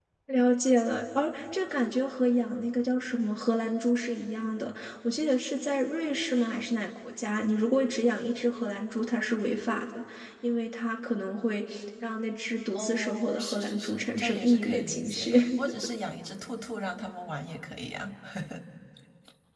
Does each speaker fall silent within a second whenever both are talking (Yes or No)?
No